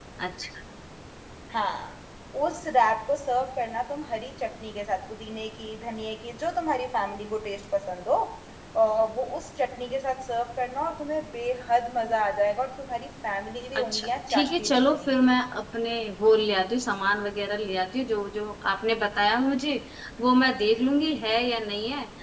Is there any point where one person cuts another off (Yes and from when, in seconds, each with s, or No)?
Yes, from 13.8 s